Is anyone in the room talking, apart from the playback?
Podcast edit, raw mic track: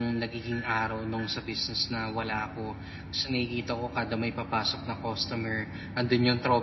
No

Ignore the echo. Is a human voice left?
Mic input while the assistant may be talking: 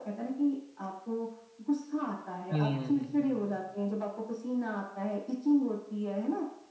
Yes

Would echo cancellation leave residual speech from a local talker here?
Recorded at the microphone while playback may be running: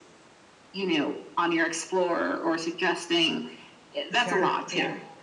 Yes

